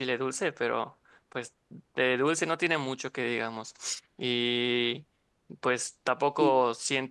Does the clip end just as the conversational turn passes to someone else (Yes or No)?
No